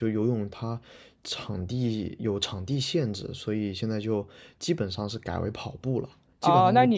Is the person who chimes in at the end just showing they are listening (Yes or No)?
No